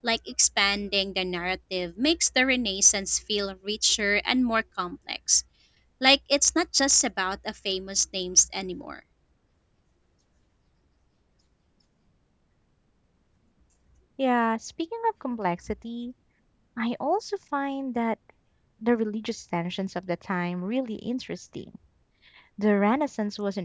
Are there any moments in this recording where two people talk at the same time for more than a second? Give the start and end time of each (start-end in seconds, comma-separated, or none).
none